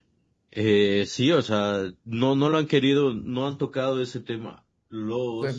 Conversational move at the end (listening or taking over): taking over